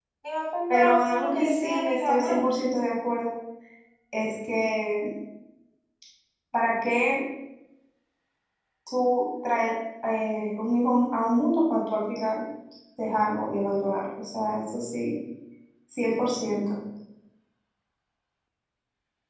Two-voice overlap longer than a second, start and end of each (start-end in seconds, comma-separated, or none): 0.7-2.4